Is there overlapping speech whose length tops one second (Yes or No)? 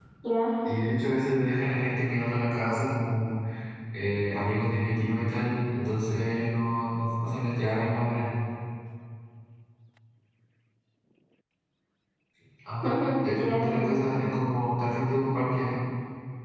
Yes